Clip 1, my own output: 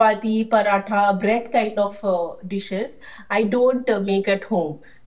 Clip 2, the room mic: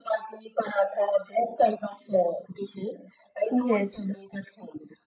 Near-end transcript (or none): Yes,